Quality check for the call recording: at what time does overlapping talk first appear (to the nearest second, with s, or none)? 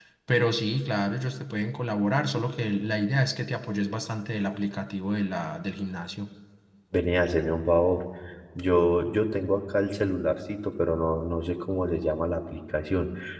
none